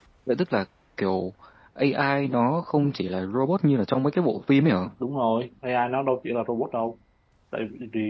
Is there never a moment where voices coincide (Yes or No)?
Yes